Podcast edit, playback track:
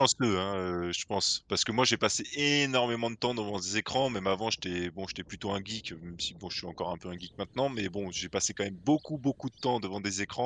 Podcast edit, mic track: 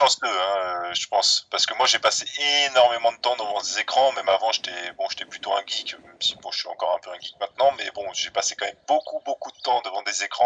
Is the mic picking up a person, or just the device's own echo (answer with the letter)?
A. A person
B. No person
B